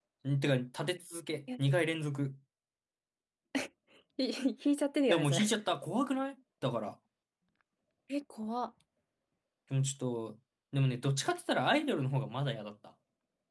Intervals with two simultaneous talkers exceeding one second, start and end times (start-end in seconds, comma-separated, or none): none